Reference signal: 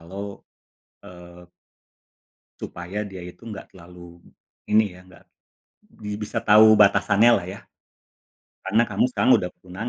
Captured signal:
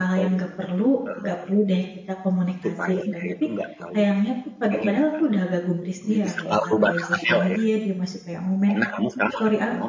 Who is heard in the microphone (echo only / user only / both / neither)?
both